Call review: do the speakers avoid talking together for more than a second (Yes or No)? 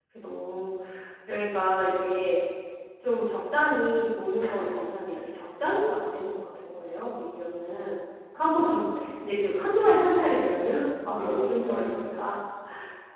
No